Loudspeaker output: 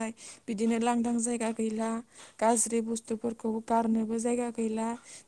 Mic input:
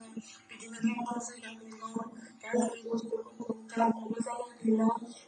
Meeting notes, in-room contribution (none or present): none